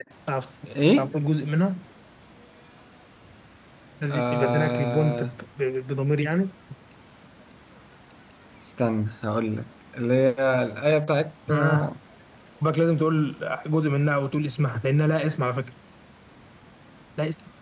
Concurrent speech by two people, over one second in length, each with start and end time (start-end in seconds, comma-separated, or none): 4.1-5.3